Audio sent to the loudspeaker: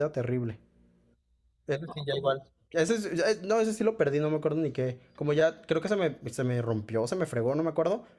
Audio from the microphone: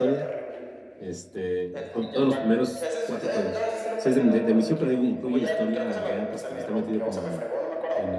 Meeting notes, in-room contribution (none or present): present